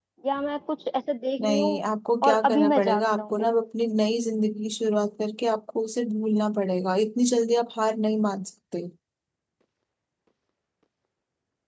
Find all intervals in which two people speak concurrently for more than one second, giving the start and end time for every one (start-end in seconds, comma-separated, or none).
2.2-3.5